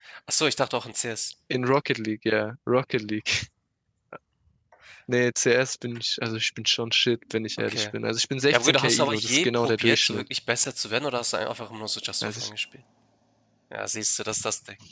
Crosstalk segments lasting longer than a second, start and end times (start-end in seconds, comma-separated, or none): 8.5-10.2